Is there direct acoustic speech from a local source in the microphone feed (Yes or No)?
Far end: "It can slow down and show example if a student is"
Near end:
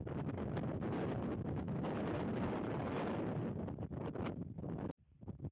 No